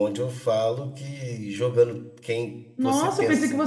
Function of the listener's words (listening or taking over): taking over